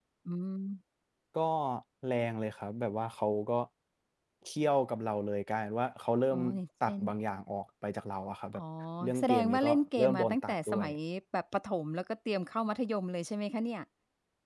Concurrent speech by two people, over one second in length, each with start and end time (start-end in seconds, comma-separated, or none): 9.2-10.9